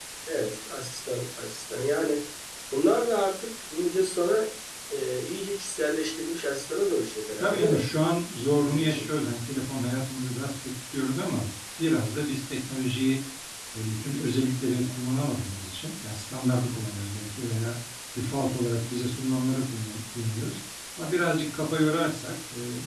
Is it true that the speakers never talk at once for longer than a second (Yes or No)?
Yes